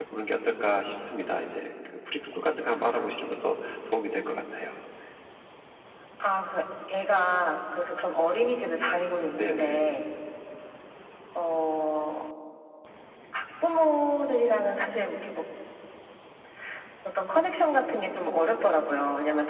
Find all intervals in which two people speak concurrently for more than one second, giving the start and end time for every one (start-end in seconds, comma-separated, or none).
none